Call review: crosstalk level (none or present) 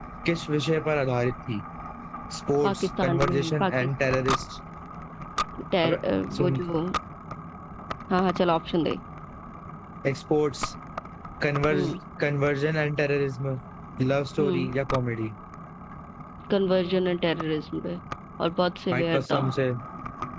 present